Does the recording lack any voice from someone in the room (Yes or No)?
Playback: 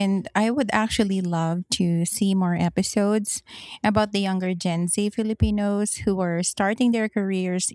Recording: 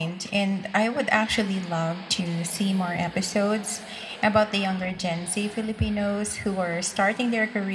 Yes